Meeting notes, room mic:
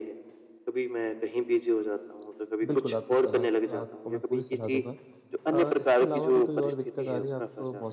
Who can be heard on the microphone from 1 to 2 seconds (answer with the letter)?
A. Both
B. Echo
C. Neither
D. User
B